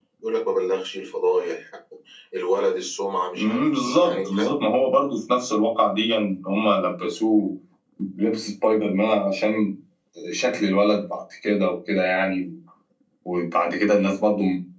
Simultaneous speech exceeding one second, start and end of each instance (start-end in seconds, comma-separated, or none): 3.4-4.6